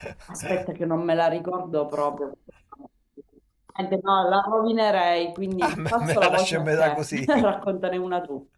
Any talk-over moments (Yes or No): Yes